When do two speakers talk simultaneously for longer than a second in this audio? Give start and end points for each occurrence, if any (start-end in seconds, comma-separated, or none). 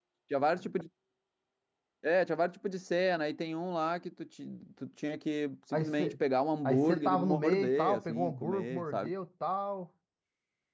6.6-9.1